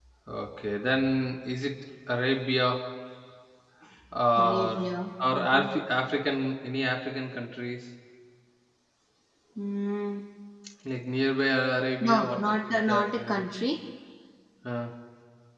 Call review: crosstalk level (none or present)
present